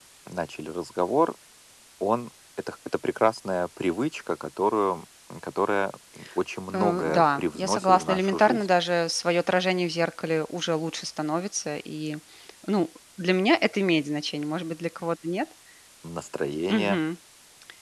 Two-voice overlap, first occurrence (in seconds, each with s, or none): 6.7 s